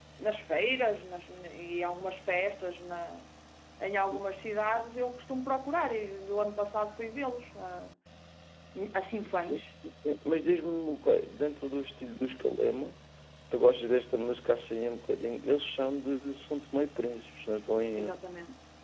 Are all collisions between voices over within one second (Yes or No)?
Yes